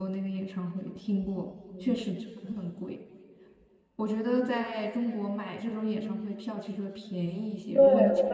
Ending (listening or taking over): taking over